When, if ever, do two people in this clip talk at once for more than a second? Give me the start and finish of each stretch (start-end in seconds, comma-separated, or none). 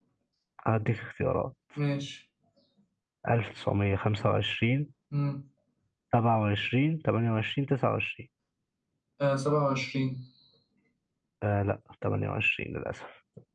none